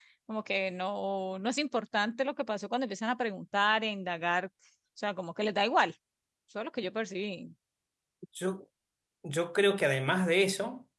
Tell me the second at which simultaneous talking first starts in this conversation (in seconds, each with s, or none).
none